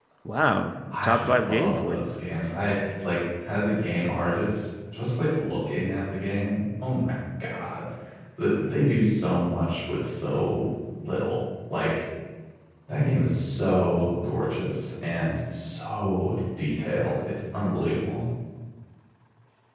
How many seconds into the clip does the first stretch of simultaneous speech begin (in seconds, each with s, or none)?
0.9 s